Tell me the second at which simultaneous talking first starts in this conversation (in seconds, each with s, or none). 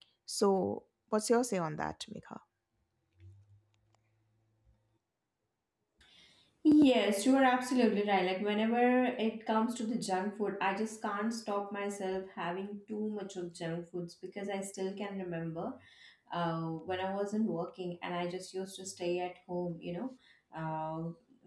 none